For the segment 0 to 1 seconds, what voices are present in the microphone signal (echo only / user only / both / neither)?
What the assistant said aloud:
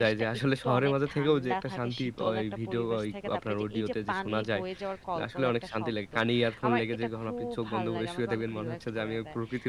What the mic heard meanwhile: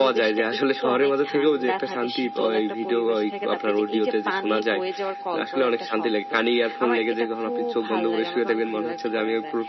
echo only